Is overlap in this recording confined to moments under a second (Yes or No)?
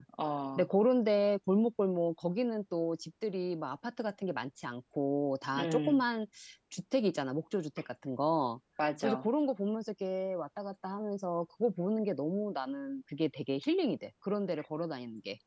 Yes